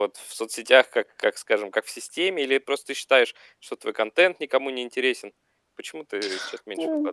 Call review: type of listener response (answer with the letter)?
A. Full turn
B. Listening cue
A